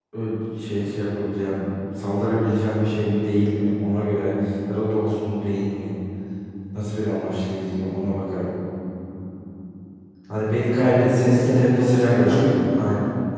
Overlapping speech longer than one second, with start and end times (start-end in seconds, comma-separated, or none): 10.7-12.5